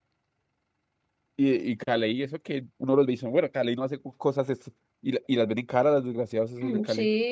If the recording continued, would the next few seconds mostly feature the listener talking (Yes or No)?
Yes